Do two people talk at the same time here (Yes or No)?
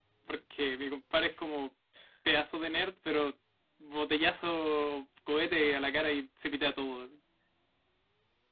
No